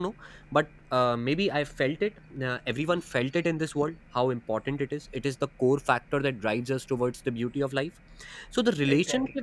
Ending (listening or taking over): listening